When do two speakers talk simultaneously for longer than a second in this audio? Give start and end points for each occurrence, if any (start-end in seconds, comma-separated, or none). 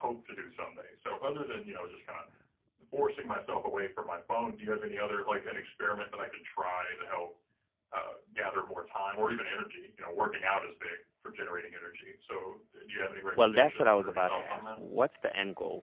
13.4-14.8